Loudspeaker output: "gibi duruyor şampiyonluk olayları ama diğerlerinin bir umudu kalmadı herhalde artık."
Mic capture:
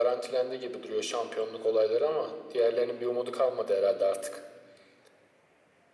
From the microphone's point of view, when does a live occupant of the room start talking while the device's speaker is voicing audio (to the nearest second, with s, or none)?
none